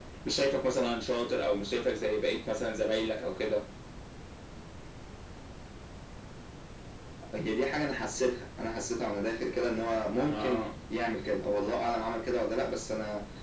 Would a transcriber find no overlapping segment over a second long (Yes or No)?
Yes